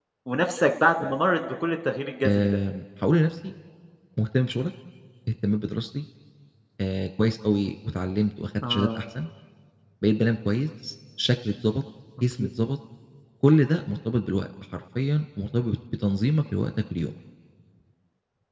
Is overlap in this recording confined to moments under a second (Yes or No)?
Yes